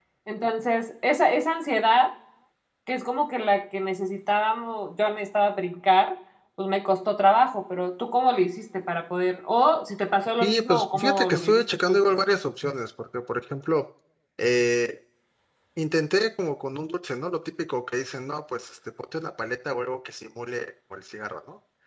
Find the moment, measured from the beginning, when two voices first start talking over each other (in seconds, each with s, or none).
10.4 s